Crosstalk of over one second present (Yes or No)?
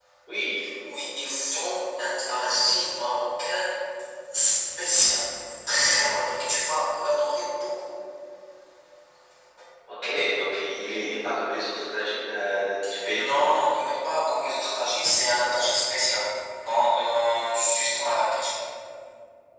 No